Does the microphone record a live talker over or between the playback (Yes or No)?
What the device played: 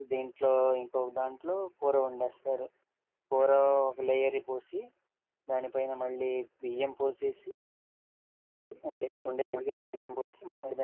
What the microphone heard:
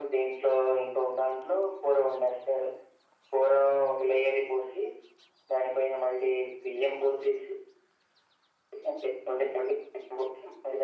No